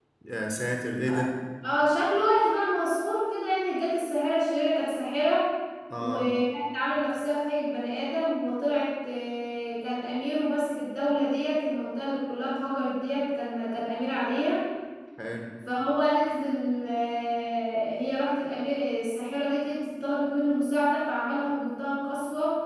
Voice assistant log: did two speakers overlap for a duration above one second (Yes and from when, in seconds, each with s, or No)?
No